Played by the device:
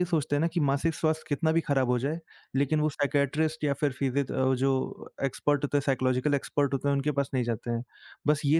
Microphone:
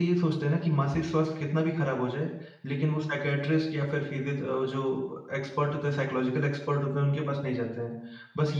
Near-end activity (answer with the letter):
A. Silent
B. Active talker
A